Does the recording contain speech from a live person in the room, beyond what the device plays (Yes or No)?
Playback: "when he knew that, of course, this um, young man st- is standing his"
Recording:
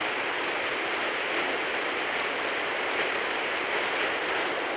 No